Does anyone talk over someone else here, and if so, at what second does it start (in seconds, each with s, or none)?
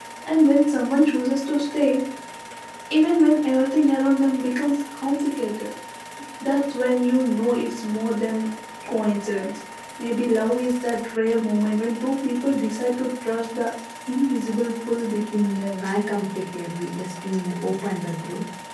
none